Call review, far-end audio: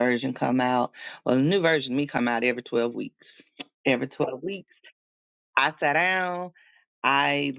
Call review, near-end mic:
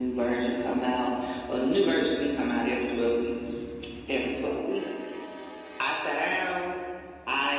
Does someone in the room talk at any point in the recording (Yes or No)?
No